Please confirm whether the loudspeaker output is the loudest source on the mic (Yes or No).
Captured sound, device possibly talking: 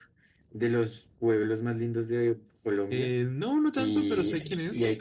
Yes